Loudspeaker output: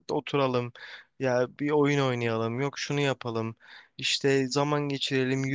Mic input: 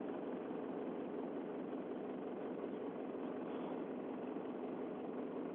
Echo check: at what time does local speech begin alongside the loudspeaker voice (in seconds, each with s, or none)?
none